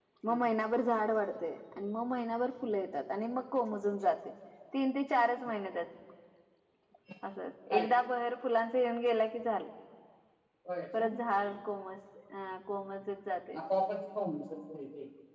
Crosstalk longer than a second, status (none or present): none